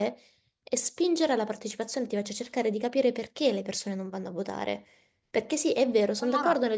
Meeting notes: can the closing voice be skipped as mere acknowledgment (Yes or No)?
Yes